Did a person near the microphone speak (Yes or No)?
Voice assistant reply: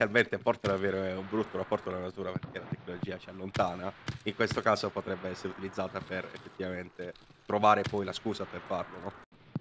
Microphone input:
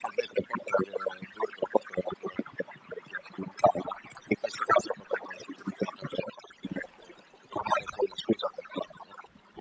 No